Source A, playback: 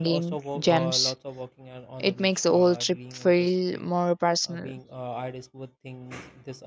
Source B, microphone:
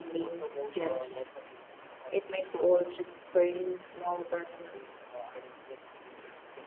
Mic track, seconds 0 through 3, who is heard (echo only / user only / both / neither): echo only